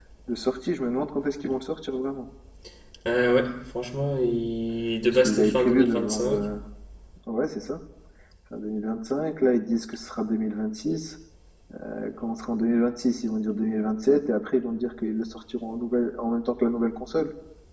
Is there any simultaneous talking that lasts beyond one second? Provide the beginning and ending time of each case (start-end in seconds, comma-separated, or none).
5.1-6.4